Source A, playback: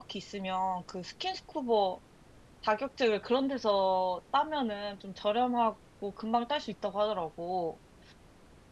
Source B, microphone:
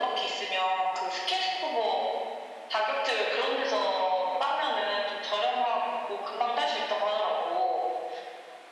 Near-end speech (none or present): none